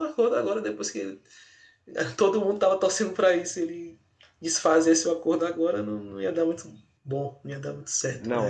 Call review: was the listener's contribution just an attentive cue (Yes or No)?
No